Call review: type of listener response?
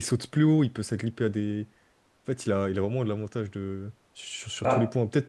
listening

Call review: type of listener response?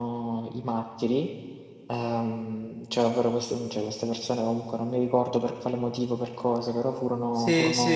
taking over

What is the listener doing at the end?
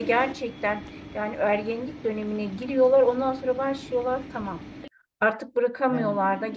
listening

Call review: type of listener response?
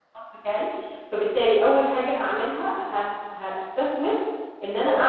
listening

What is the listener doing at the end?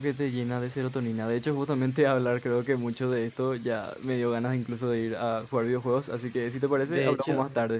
taking over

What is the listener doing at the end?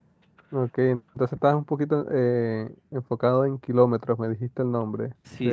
taking over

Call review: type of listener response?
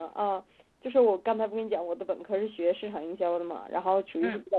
listening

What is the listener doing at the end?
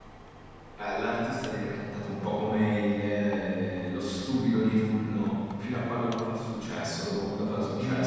taking over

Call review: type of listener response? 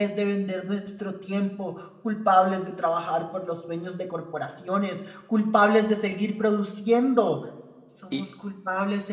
listening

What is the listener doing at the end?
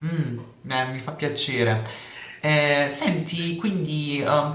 listening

